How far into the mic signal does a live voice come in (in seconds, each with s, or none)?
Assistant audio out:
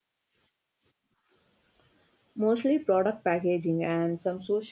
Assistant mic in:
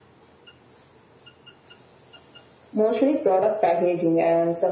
none